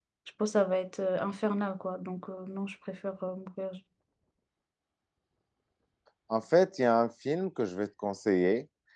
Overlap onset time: none

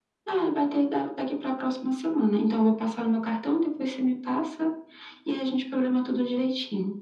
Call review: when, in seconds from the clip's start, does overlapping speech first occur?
none

